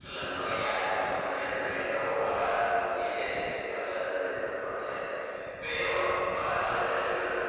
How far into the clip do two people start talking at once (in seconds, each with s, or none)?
none